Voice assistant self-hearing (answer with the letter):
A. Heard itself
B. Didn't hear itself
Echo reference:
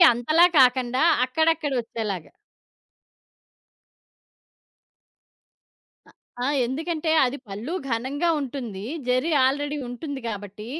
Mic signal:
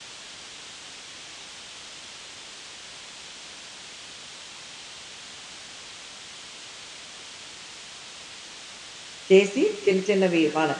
B